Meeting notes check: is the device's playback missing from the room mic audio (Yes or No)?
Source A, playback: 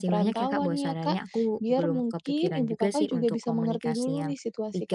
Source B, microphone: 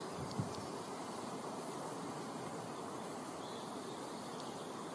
Yes